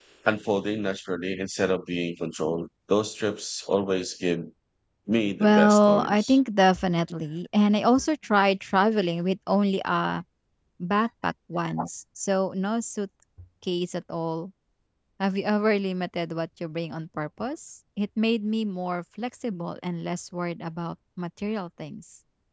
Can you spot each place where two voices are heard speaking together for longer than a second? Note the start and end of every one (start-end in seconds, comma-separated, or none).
5.2-6.4